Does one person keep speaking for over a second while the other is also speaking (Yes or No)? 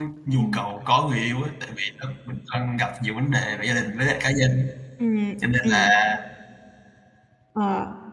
No